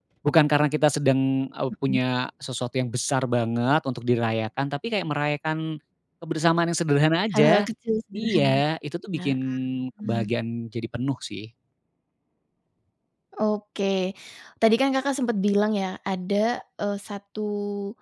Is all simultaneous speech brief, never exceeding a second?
Yes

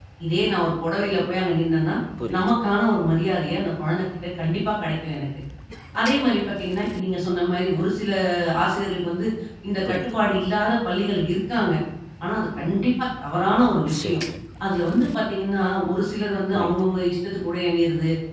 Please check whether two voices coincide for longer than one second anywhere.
No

